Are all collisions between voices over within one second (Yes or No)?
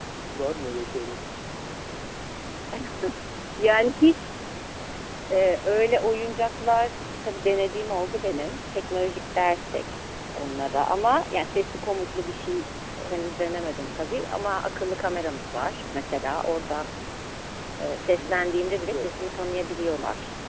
No